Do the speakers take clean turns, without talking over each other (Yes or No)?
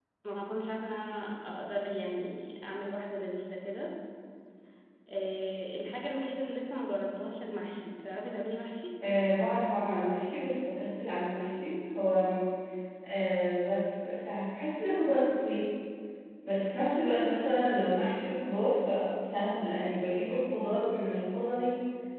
Yes